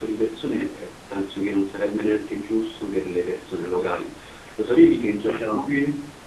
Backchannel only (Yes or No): Yes